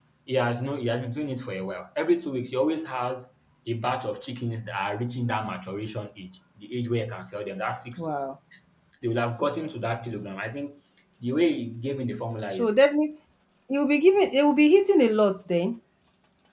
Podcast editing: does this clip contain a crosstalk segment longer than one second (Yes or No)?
No